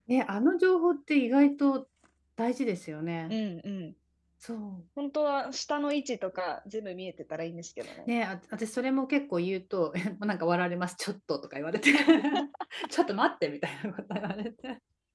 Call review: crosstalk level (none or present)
none